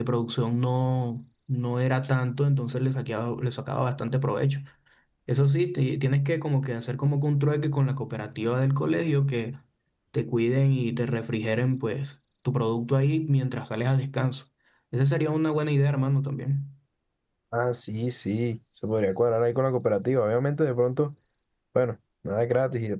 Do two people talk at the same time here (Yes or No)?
No